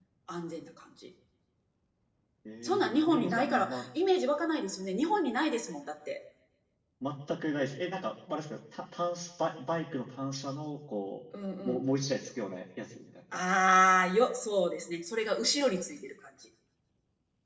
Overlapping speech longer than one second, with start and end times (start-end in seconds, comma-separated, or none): 2.6-3.8